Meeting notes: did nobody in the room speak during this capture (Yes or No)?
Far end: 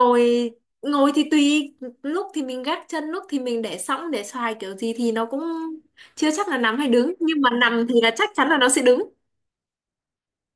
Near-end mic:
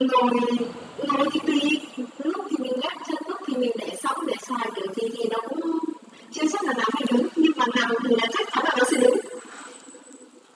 Yes